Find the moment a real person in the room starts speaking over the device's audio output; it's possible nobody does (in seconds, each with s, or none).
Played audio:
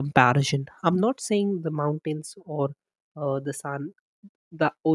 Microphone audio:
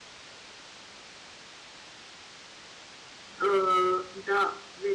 3.4 s